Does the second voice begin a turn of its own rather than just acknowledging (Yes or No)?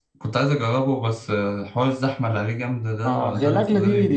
Yes